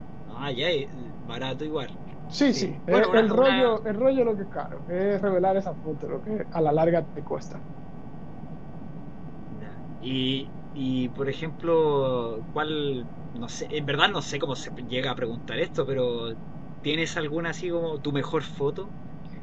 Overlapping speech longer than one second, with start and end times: 2.5-3.8

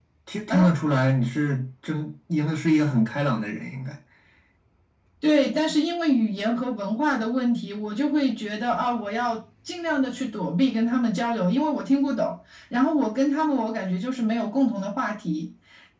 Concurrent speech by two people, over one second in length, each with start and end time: none

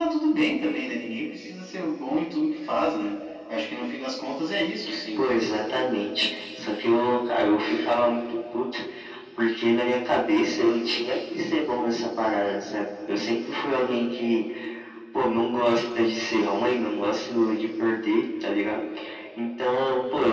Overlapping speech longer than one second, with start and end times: none

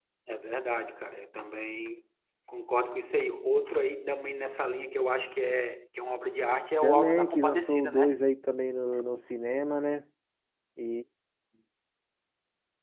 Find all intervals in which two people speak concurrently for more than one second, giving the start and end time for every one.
6.8-8.2

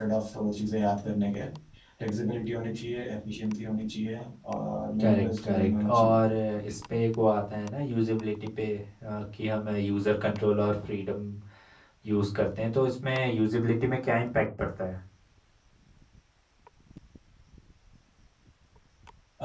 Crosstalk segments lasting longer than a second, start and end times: 5.0-6.2

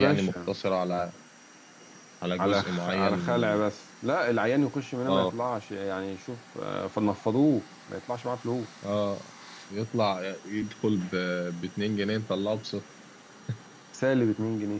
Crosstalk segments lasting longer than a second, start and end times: 2.4-3.6

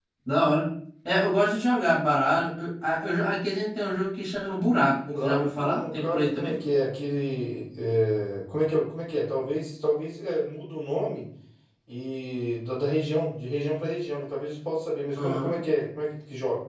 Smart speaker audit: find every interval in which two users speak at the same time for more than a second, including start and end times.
5.2-6.5

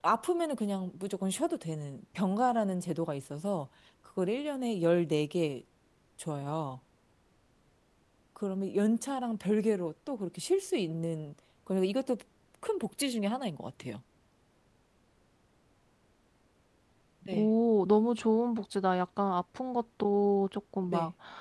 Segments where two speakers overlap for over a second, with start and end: none

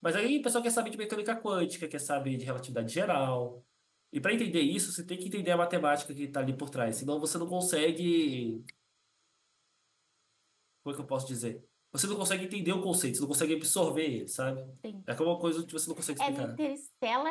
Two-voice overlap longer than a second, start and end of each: none

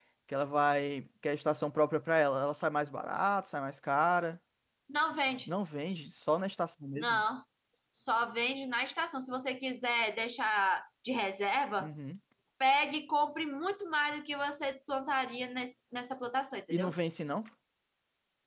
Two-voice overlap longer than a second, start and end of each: none

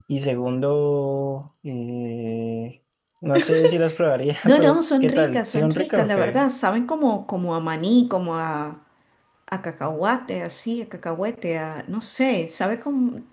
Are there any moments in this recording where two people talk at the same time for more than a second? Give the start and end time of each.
4.4-6.4

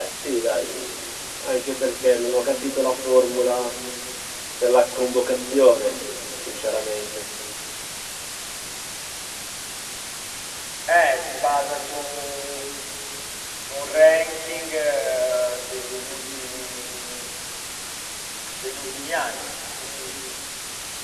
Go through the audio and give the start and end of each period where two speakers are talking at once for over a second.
none

